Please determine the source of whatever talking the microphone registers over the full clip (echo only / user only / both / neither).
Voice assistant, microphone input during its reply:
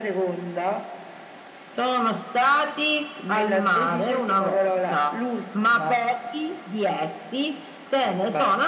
echo only